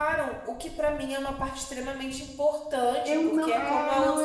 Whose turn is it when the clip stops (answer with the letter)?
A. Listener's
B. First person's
A